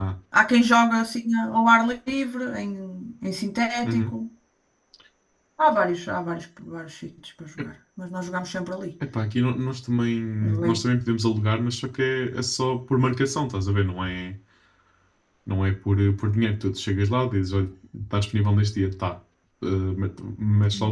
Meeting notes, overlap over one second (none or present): none